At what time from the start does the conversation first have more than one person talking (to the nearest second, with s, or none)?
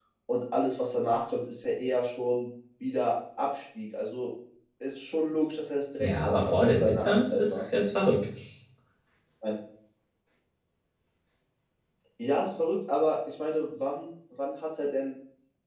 6 s